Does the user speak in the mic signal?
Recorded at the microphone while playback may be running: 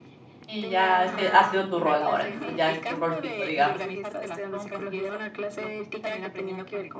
Yes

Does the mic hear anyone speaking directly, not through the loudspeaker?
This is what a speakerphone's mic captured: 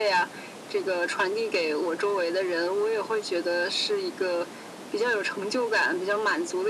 No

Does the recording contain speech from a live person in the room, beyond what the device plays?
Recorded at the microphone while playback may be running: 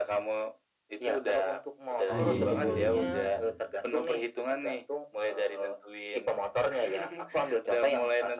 Yes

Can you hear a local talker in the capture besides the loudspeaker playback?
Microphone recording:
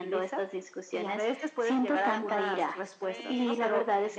Yes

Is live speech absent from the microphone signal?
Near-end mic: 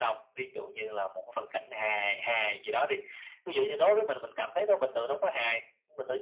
Yes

